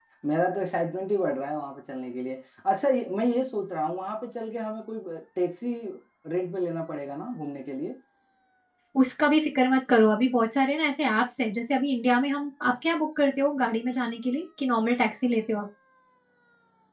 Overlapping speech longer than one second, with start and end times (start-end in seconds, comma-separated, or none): none